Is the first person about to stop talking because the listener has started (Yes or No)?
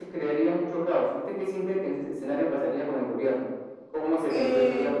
Yes